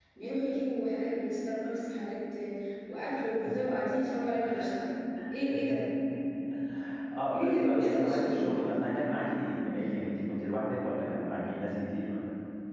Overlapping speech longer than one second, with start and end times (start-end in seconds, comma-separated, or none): 7.3-8.5